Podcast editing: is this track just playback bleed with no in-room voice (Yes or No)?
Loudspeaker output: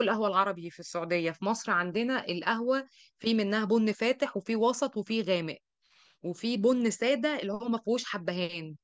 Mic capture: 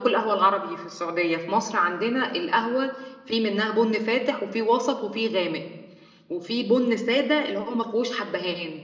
Yes